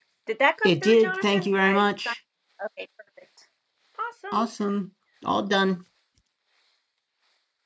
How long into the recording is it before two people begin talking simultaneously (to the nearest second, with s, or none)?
1 s